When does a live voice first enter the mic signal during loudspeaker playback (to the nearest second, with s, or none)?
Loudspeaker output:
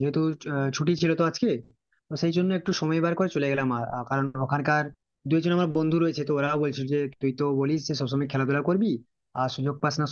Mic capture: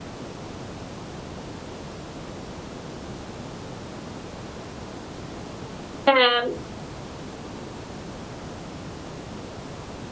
6 s